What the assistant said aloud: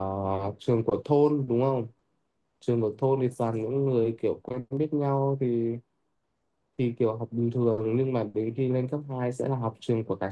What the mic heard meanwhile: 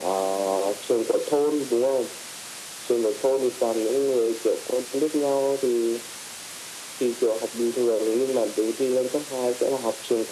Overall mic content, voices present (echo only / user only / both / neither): echo only